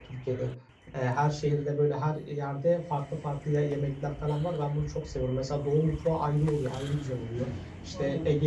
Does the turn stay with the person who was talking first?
Yes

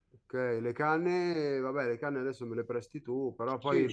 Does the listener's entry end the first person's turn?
Yes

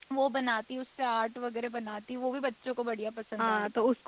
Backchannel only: No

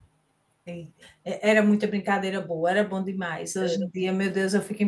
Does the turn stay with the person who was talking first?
Yes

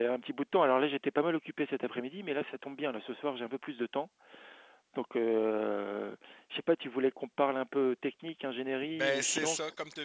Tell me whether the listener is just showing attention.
No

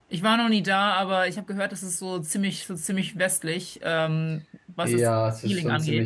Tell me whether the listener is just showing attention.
No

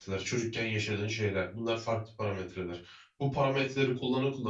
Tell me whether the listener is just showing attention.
Yes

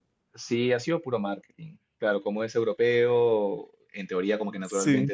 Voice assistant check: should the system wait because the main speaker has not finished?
Yes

